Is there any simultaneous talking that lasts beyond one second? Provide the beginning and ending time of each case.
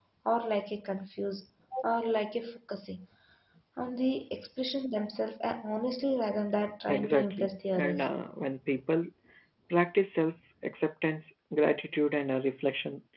6.9-8.1

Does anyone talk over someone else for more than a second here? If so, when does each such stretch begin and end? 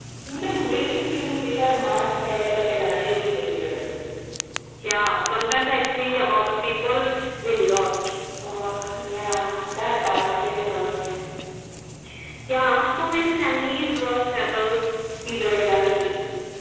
none

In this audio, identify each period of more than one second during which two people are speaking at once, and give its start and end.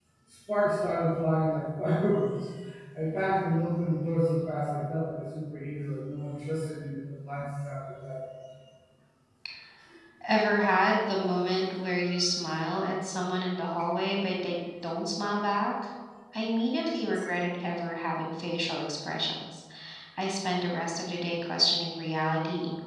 none

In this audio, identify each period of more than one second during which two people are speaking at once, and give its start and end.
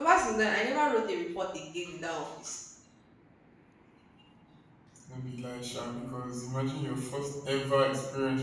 none

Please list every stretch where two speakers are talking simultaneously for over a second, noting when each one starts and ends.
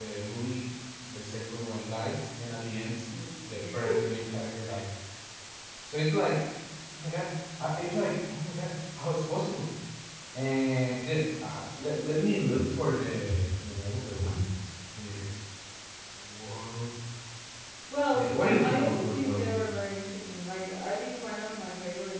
18.2-19.7

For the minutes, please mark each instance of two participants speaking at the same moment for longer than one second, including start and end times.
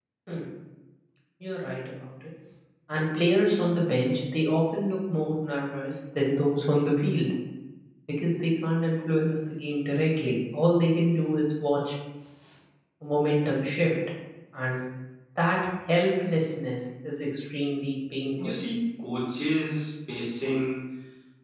none

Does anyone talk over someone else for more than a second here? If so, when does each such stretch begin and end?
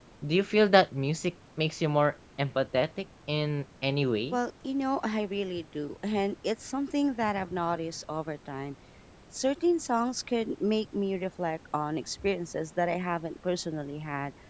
none

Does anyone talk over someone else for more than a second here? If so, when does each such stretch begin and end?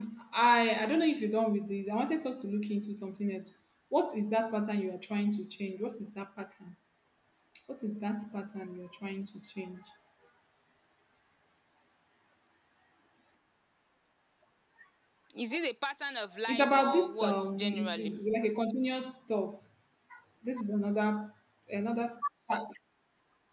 16.5-18.1

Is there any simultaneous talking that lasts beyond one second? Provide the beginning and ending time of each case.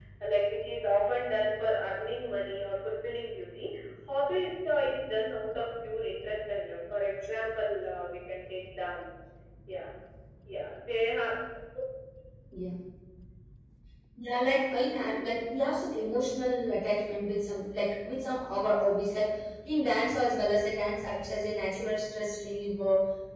none

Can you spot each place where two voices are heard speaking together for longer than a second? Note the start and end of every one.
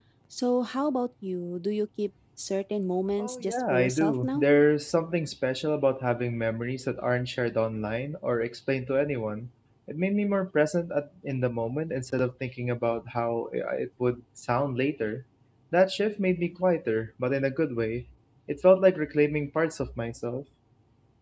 3.2-4.5

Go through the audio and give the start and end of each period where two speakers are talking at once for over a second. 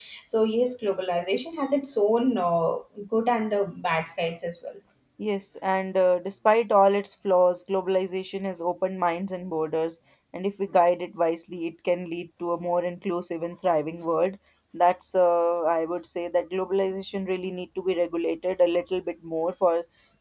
none

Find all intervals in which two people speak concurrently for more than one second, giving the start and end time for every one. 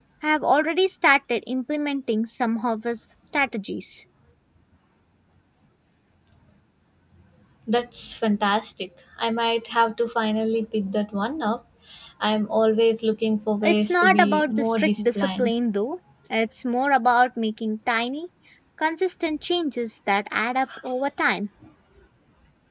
13.6-15.5

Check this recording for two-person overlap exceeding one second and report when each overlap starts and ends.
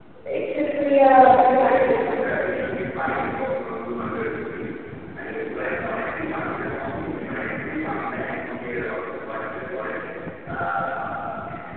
1.2-2.7

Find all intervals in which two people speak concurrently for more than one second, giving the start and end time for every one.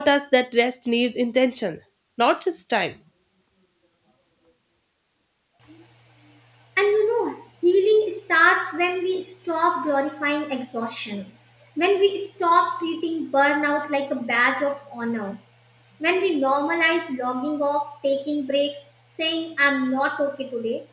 none

